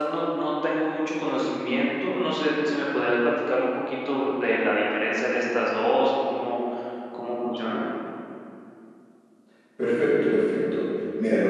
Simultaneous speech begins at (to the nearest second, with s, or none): none